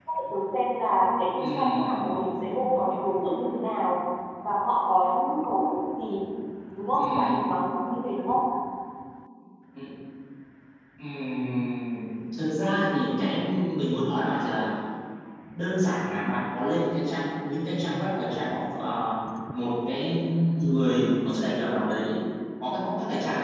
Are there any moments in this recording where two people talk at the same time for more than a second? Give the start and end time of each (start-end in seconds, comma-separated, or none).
1.4-2.7